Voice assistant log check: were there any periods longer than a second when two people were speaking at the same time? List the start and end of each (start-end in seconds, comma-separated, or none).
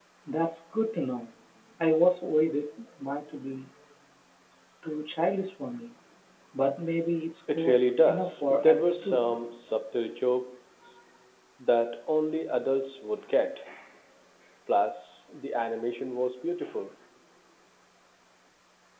7.5-9.3